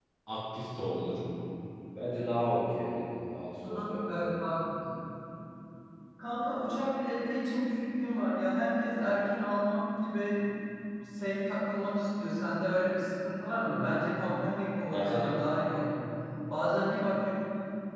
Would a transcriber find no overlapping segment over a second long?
Yes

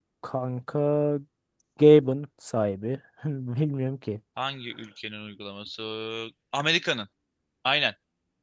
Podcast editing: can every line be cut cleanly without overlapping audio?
Yes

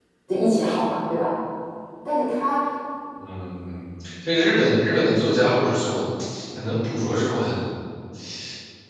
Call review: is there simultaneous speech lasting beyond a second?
No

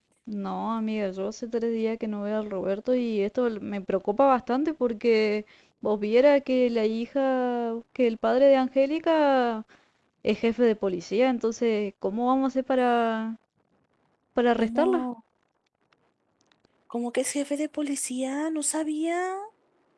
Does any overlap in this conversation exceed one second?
No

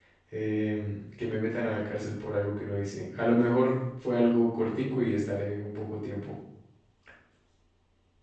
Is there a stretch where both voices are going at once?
No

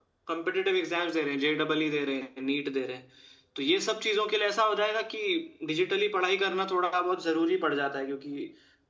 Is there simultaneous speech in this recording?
No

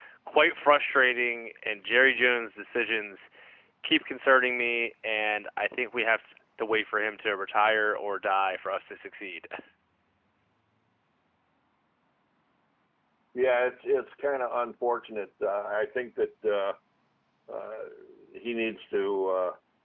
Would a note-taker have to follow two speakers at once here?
No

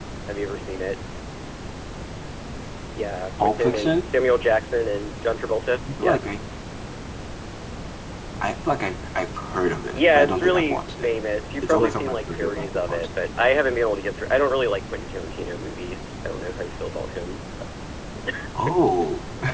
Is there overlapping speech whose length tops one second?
Yes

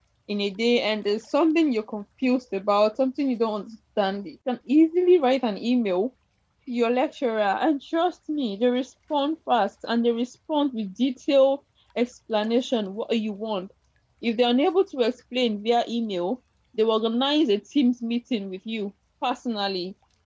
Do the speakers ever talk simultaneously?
No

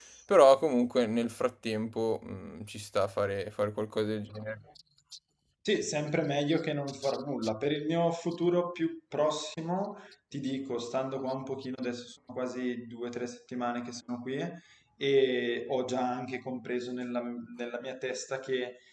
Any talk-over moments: No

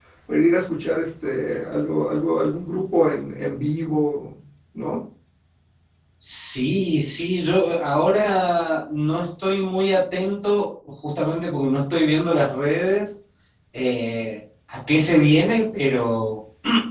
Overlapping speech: No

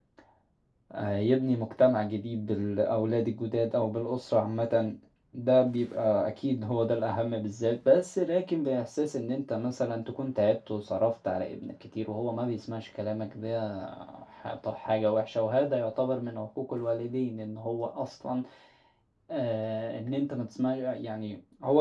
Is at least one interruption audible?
No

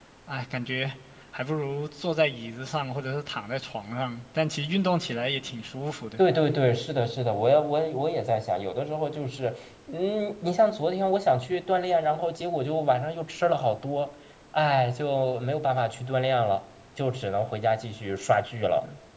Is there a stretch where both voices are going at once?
No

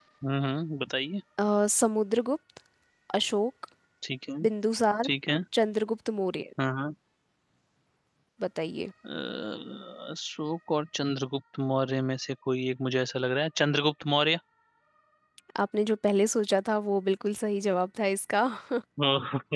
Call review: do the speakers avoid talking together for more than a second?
Yes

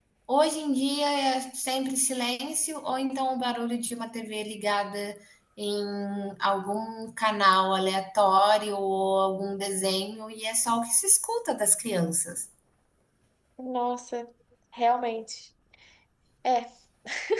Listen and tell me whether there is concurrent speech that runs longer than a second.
No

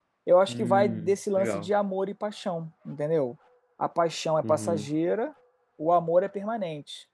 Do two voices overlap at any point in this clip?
Yes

